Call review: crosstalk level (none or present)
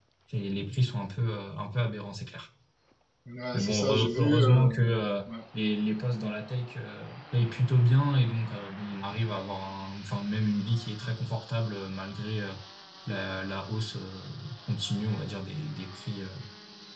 present